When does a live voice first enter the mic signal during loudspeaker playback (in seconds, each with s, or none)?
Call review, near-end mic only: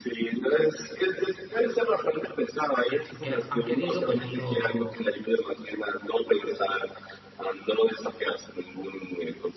2.9 s